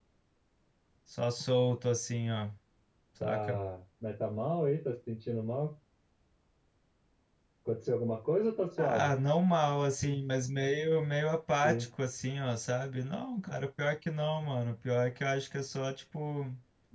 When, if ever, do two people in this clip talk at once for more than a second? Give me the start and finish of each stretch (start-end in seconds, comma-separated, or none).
none